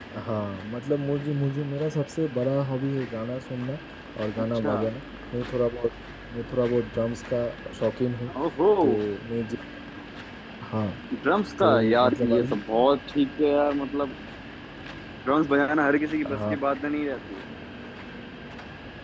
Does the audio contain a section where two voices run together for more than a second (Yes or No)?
Yes